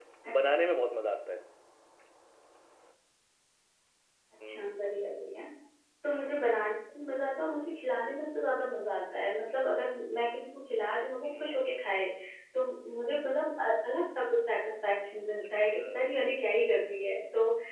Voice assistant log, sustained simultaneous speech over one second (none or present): none